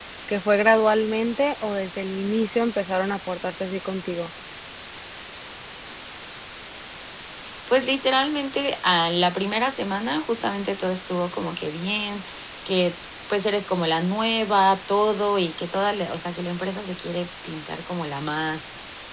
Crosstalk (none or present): none